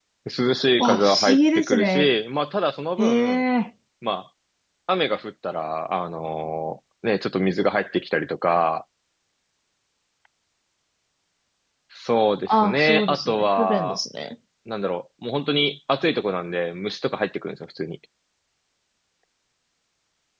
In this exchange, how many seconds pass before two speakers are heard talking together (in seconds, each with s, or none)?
0.8 s